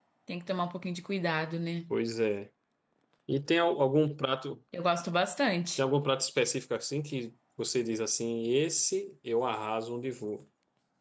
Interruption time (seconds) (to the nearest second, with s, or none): none